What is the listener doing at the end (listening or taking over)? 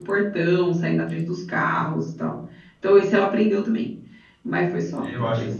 taking over